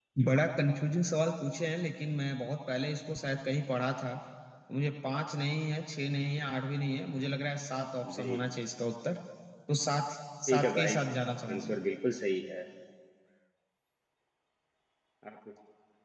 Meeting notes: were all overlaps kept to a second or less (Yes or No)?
No